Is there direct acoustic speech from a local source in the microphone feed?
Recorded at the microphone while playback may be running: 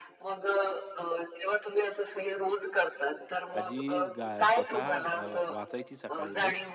Yes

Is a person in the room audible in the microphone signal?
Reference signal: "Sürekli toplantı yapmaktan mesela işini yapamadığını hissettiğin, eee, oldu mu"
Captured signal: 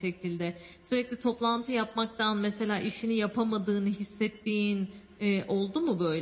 No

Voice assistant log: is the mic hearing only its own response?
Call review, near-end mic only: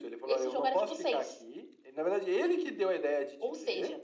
Yes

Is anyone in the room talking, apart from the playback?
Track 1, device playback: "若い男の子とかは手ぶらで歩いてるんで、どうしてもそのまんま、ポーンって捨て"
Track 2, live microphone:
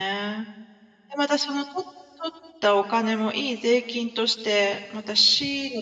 Yes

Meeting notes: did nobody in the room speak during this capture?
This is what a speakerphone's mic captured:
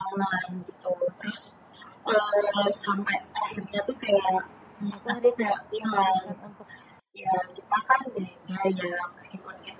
No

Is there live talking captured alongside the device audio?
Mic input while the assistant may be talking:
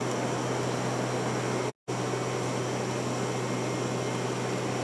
No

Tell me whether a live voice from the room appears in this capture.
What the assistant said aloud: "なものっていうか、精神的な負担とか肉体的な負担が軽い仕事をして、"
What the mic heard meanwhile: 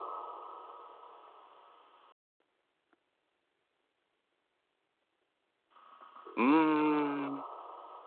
Yes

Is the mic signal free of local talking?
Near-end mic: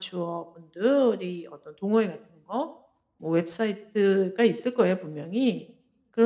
Yes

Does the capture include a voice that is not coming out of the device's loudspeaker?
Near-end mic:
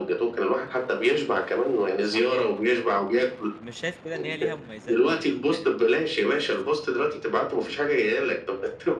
Yes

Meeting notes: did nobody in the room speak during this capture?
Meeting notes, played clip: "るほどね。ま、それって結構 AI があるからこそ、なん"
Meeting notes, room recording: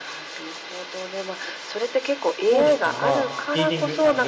No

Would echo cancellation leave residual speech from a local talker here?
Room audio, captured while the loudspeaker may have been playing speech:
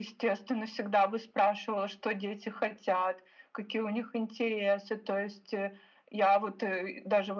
No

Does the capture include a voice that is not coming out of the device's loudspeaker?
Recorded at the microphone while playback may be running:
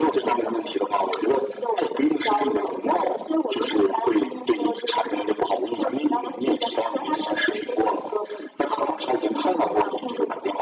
Yes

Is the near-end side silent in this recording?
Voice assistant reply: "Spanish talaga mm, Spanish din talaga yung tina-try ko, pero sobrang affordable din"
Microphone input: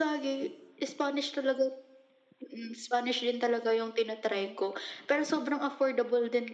No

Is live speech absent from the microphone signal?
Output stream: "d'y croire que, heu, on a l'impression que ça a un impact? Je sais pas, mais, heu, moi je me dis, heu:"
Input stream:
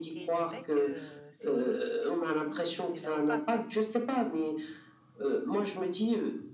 No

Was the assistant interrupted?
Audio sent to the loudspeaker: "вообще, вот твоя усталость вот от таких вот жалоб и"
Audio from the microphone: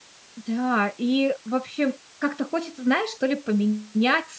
Yes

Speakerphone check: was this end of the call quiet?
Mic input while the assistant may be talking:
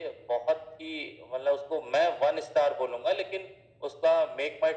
Yes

